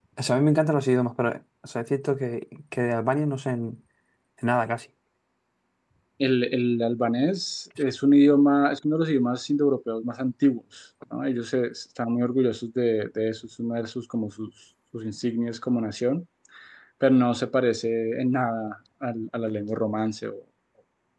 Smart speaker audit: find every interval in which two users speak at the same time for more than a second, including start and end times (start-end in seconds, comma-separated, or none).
none